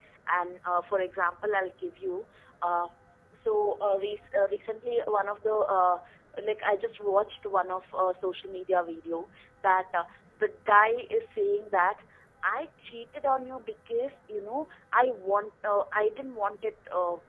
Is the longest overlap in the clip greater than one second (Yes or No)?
No